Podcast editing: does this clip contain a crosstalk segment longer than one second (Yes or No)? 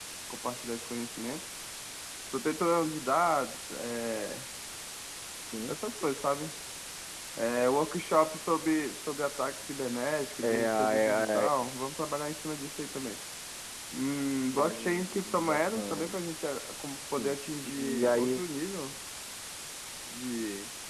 Yes